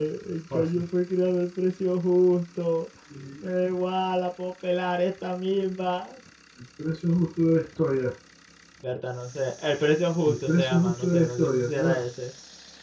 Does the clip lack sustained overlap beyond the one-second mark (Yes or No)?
No